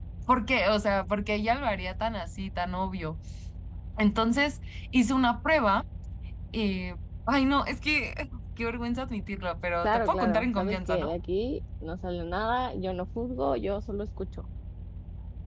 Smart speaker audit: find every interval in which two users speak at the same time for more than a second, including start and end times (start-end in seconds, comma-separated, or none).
9.8-11.1